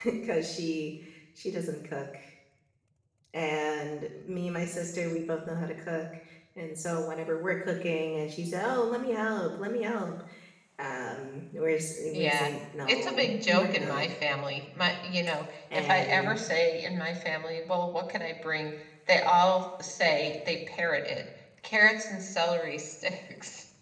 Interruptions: present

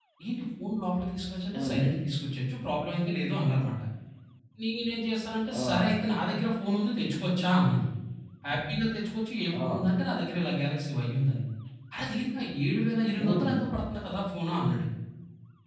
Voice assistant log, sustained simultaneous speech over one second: none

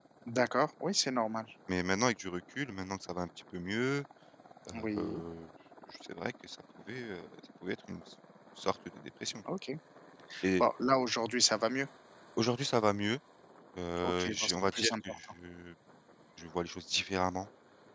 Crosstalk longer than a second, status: present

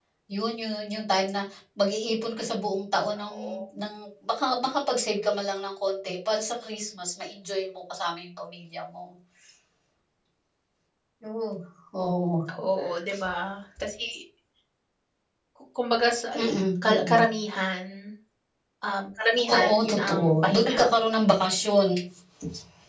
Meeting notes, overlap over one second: present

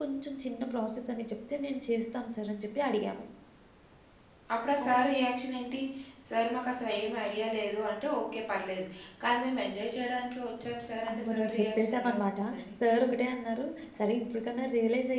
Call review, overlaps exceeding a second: present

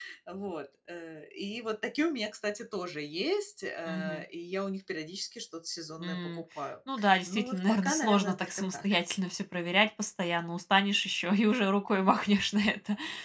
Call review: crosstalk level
present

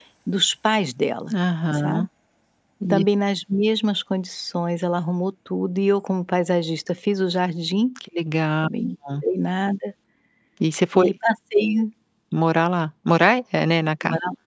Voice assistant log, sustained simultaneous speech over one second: none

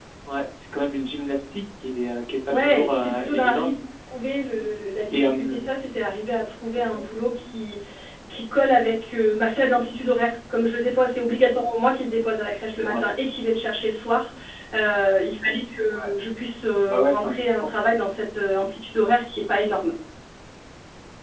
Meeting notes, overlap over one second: present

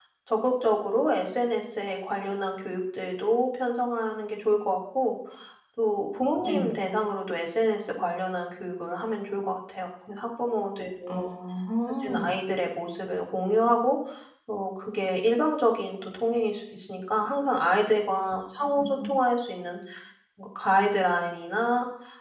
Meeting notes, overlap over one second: none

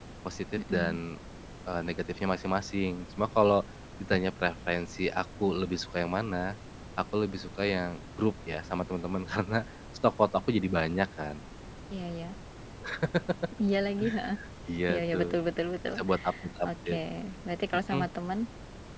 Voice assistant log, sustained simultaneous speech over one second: none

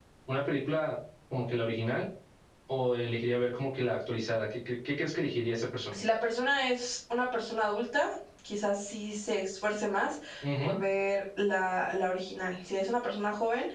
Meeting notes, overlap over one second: none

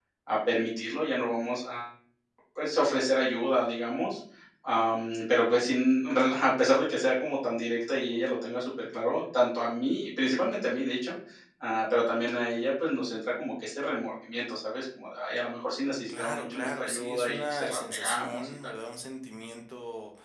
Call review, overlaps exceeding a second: present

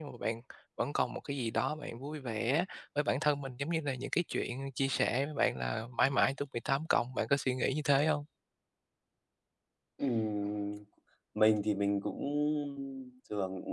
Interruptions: none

